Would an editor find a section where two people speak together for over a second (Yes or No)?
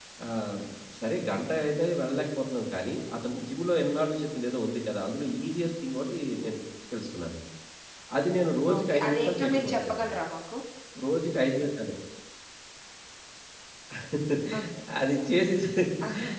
Yes